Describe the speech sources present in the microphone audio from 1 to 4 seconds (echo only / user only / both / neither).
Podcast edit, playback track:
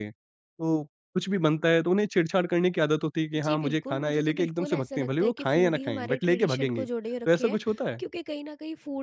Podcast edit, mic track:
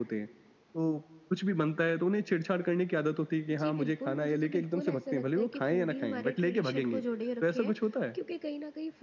echo only